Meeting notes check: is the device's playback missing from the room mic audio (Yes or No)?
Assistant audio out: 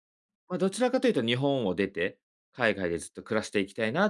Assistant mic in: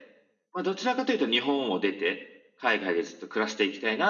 No